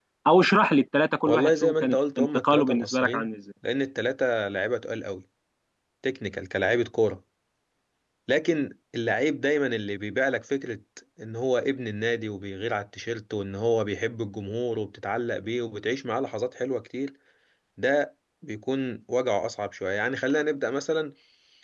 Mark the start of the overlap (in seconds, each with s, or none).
1.3 s